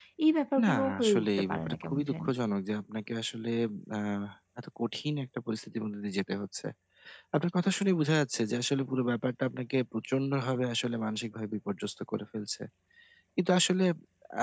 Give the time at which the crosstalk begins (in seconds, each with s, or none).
0.6 s